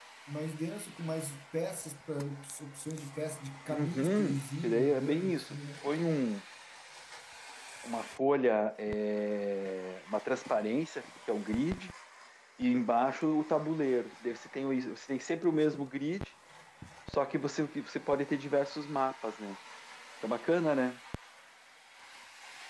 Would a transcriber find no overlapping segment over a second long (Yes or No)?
No